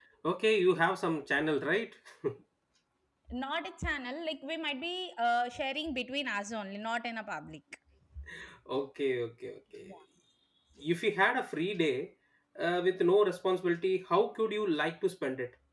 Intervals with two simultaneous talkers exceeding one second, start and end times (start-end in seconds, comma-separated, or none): none